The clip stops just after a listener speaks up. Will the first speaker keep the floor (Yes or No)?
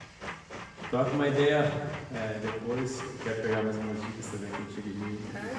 No